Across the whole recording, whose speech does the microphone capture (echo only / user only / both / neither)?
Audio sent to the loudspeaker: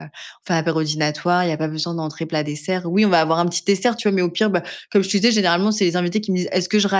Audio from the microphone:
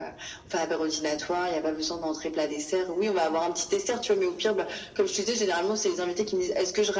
echo only